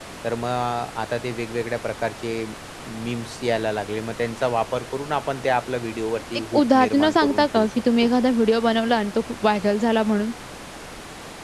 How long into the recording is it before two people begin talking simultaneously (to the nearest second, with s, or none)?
7 s